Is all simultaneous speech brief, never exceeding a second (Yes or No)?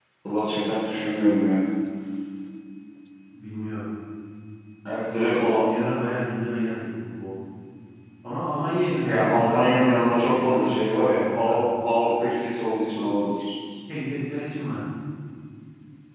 No